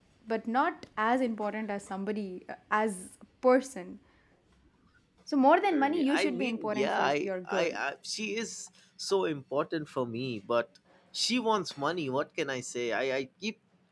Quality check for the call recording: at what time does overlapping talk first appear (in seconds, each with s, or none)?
5.7 s